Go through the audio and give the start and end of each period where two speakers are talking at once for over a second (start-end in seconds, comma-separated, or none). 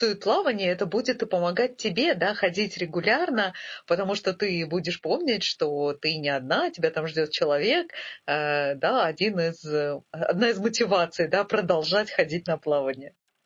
none